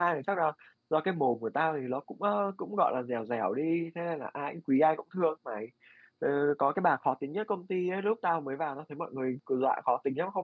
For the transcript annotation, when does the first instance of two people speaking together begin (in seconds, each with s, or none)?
none